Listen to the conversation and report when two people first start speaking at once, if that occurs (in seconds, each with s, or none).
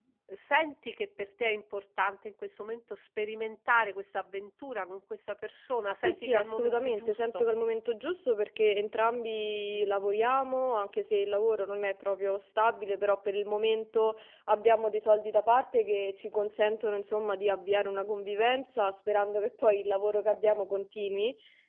6.0 s